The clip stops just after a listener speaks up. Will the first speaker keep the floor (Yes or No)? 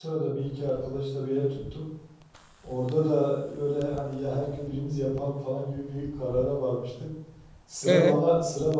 Yes